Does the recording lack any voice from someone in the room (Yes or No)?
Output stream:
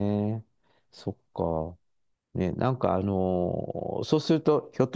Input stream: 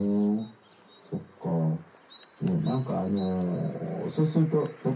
Yes